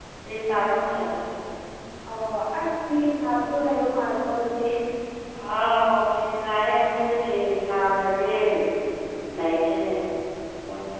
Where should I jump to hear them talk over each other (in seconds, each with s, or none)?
none